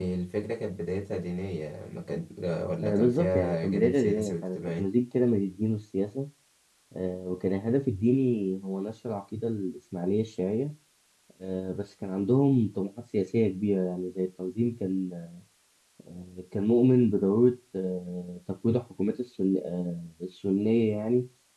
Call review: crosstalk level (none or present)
present